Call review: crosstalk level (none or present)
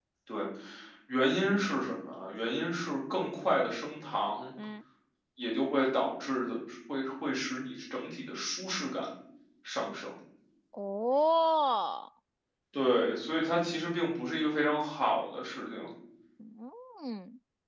none